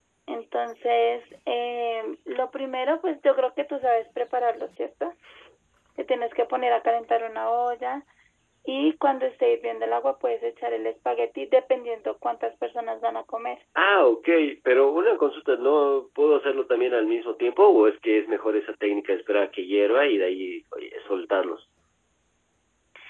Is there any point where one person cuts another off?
No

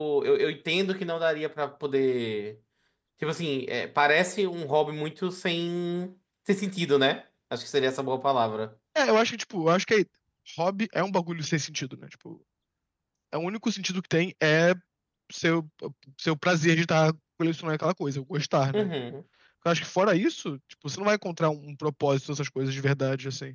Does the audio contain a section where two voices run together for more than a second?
No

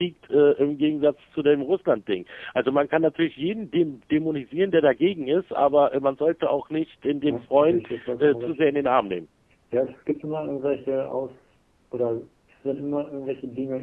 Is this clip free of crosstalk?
No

